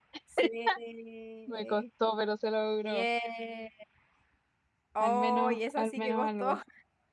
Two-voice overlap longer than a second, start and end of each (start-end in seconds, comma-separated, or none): 5.0-6.6